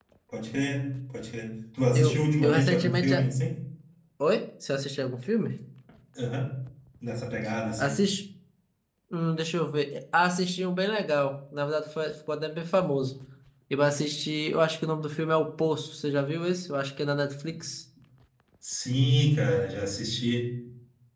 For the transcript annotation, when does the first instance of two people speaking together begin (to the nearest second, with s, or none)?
2 s